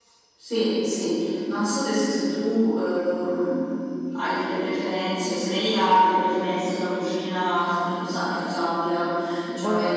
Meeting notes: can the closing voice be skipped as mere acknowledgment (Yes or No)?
No